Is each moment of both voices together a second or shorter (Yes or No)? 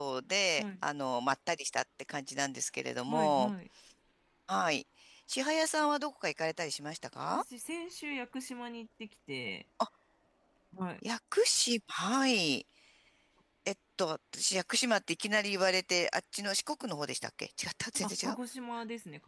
Yes